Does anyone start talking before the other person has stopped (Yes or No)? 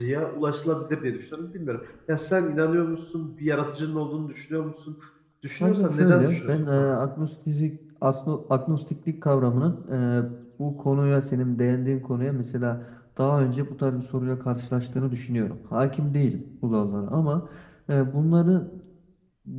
Yes